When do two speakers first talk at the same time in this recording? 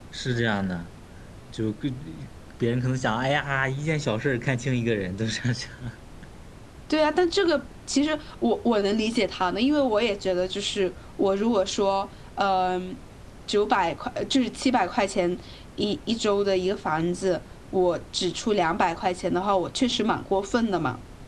none

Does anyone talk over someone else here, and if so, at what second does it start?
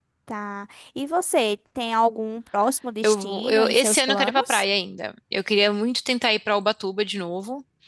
3.0 s

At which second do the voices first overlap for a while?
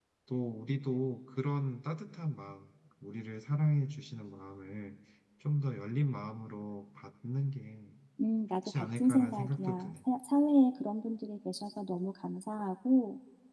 8.6 s

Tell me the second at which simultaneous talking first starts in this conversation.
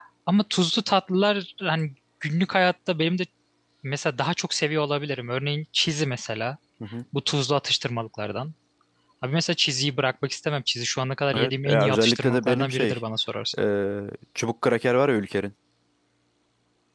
11.3 s

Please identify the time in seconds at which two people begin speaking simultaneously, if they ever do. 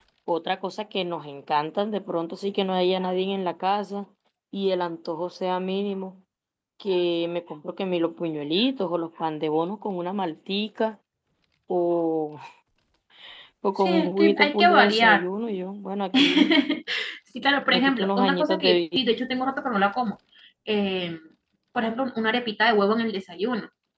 13.8 s

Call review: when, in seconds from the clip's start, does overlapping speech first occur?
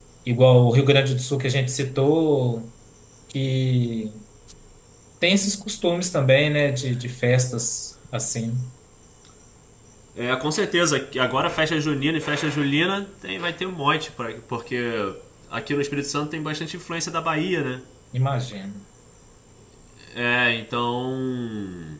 none

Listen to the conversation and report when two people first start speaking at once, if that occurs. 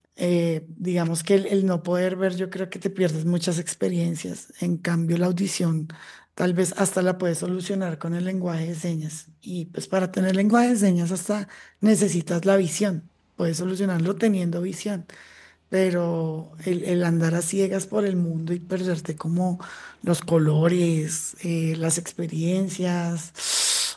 none

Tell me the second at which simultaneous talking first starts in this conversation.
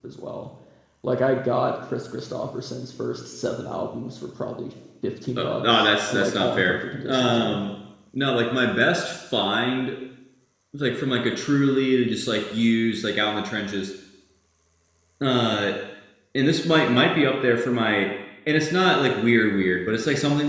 5.4 s

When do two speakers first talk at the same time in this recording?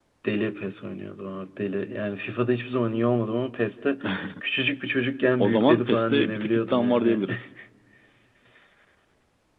5.4 s

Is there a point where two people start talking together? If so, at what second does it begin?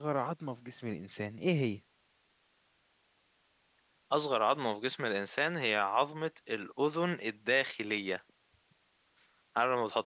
none

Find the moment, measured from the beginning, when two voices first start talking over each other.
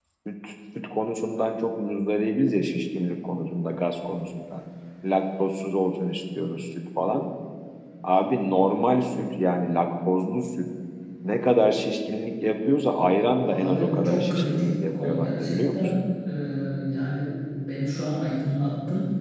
13.4 s

